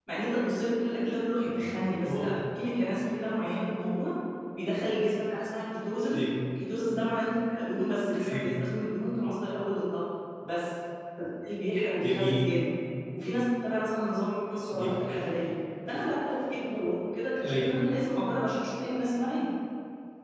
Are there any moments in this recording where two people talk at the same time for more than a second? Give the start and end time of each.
none

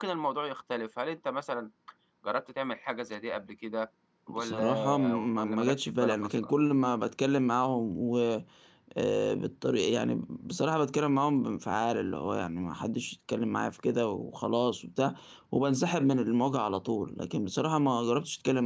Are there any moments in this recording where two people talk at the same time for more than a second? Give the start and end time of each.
4.3-6.5

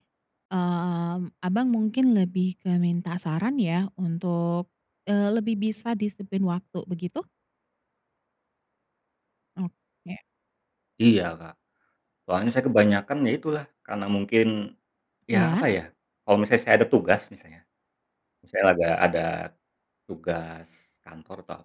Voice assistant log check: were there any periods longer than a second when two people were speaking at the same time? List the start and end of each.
none

